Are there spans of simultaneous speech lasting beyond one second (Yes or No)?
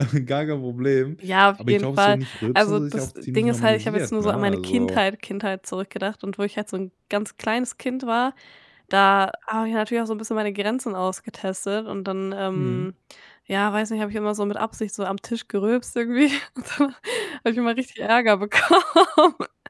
Yes